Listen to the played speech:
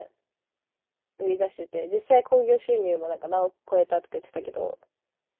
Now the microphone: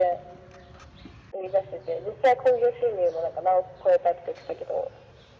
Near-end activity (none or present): none